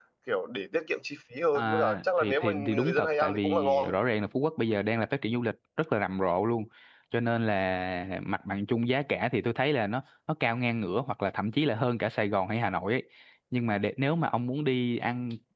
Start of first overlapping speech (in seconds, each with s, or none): 1.5 s